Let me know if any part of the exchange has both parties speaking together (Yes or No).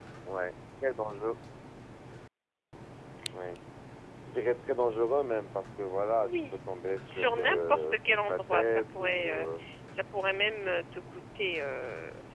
Yes